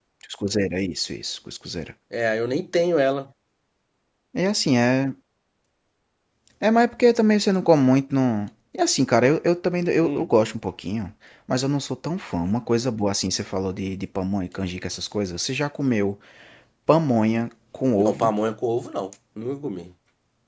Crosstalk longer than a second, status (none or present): none